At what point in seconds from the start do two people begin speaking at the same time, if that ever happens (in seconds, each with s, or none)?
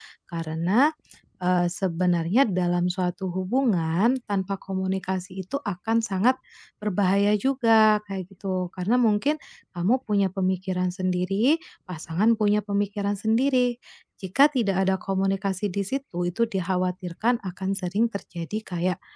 none